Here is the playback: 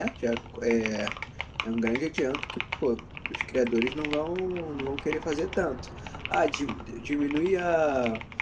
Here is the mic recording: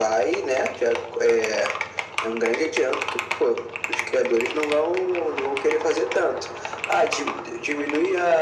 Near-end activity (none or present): none